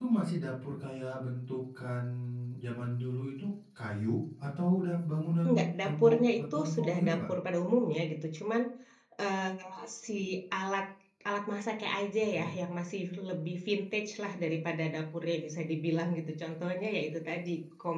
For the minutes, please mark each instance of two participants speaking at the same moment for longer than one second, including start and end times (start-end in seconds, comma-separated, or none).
5.4-7.2